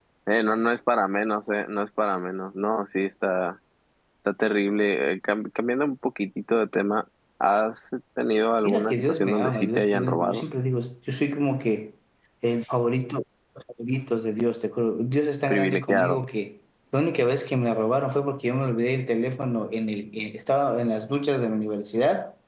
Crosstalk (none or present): present